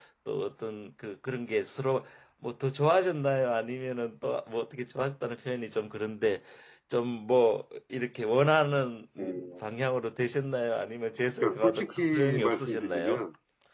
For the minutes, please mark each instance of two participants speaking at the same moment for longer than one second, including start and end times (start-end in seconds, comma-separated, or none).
11.4-13.2